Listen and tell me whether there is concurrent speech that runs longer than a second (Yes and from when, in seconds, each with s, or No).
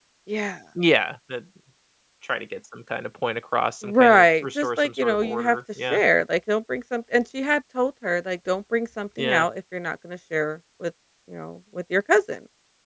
Yes, from 3.8 s